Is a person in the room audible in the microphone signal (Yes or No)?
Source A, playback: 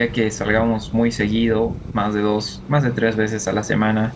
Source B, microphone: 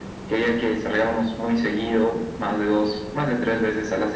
No